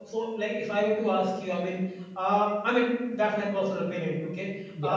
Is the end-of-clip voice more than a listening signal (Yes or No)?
No